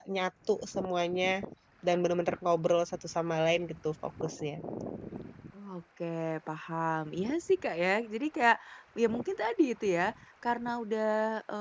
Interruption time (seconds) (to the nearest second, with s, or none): none